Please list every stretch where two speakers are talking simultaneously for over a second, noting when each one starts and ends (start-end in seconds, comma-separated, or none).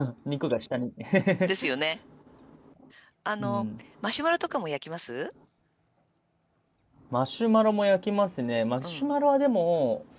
none